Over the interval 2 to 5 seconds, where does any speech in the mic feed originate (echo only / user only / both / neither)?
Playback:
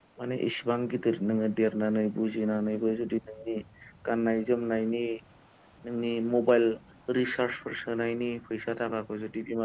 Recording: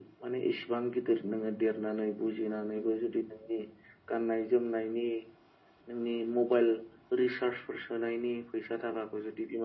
echo only